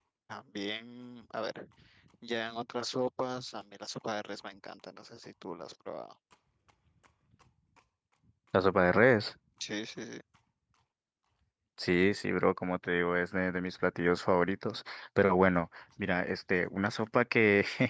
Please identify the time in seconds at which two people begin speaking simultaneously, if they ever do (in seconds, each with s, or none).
none